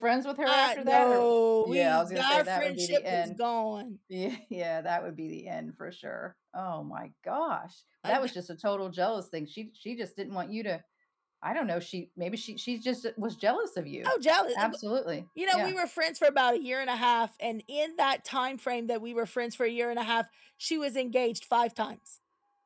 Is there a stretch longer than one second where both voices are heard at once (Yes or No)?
Yes